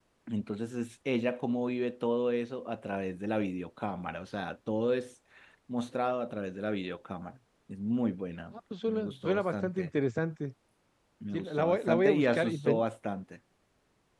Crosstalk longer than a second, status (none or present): present